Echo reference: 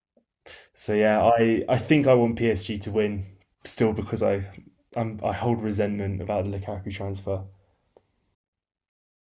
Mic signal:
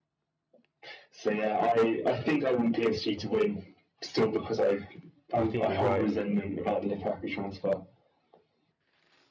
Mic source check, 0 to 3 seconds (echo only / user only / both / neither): echo only